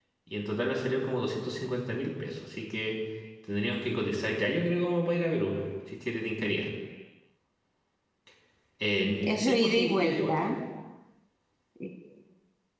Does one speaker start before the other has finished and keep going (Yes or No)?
Yes